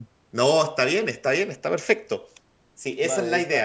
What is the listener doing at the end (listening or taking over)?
taking over